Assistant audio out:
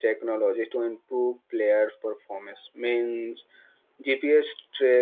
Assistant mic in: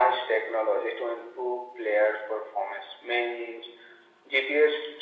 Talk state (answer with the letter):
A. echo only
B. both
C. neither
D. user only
A